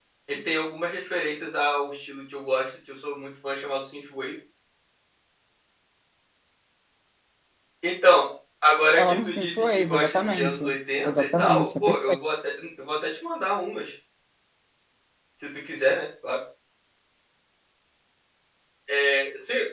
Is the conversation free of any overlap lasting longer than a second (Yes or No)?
No